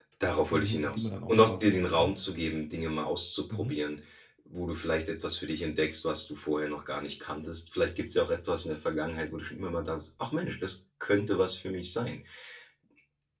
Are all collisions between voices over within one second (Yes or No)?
No